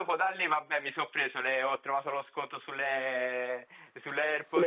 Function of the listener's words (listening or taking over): listening